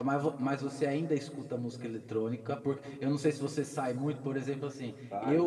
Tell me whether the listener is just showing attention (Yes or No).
Yes